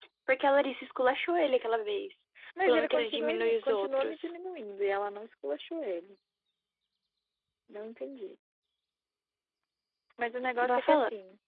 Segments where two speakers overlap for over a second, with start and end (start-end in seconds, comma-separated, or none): 2.7-4.2